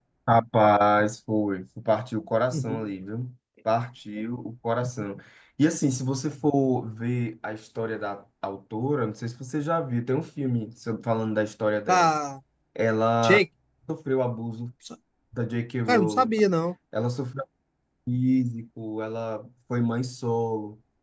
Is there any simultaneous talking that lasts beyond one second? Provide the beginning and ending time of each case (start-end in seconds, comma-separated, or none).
none